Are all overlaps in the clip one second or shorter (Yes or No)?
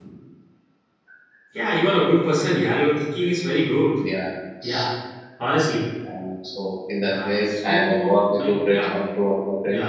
No